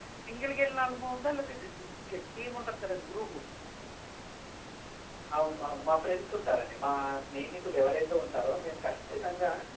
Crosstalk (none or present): none